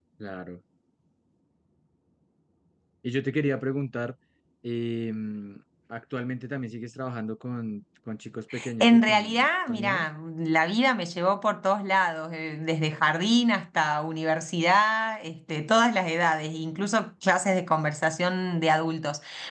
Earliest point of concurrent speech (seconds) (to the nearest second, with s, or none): 9 s